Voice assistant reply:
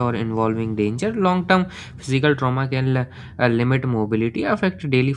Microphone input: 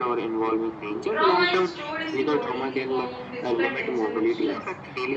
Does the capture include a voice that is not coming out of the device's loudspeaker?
Yes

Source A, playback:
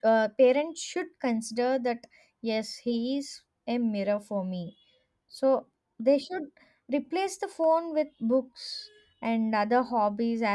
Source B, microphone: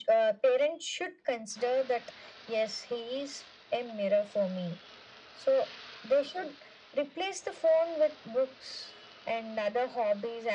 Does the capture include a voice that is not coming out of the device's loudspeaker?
No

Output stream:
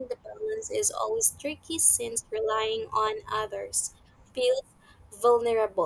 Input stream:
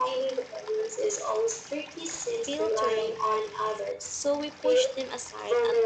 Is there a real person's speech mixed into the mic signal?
Yes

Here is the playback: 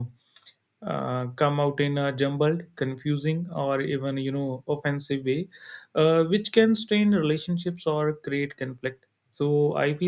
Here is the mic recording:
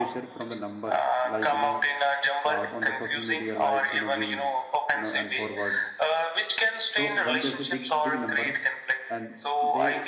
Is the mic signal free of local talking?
No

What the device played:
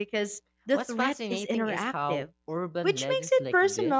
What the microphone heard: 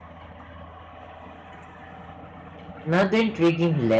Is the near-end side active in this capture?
Yes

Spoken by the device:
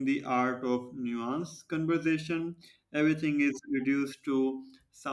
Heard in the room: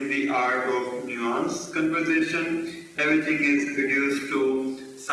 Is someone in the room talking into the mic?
No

